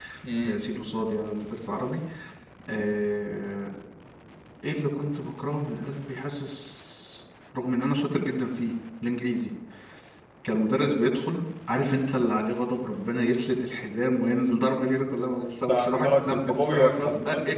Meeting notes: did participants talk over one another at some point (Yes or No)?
Yes